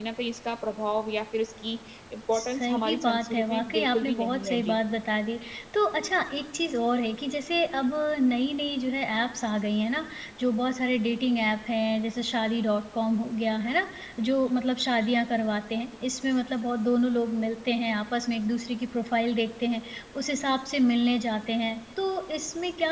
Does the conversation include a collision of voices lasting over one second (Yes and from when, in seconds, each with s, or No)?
Yes, from 2.3 s